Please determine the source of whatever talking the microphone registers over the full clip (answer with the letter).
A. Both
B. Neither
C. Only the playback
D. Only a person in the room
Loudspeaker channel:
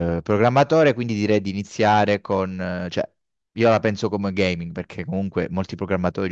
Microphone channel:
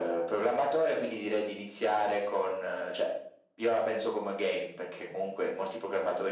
C